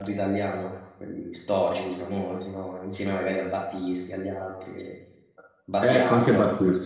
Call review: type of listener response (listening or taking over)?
taking over